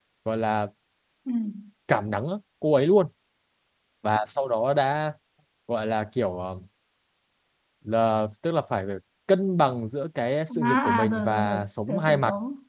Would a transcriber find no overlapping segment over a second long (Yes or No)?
No